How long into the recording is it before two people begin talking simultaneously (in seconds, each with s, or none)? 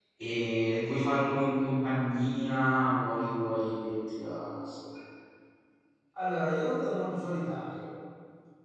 none